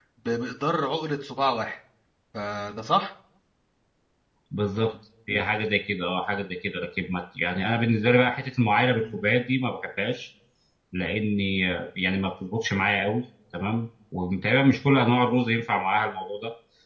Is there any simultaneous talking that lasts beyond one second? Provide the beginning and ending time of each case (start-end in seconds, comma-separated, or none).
none